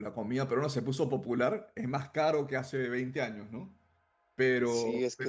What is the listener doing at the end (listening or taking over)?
taking over